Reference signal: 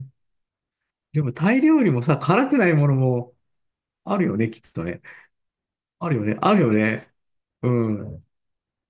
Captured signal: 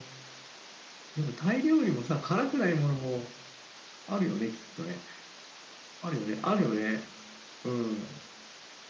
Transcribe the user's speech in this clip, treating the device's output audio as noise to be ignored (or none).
none